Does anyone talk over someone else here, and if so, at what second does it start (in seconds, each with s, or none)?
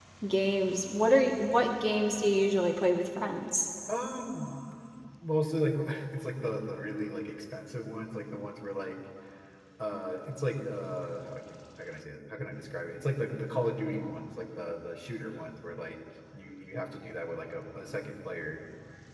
none